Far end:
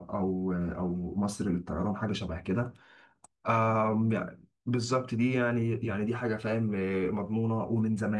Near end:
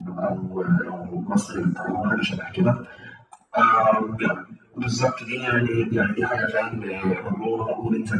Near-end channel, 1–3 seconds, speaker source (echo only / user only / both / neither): echo only